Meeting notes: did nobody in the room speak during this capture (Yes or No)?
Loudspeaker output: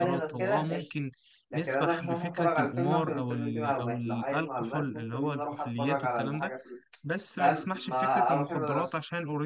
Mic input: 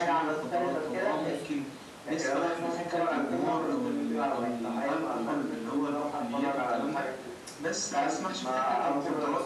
Yes